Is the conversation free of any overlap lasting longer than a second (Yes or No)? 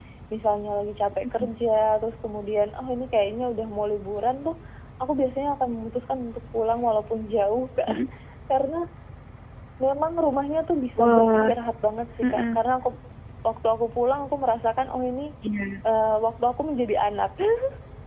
Yes